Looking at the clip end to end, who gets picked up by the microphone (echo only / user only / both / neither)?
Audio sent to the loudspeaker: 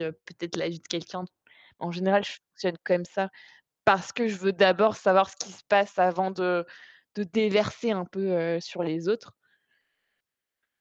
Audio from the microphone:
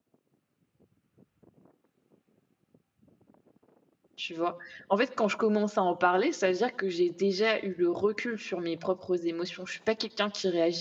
user only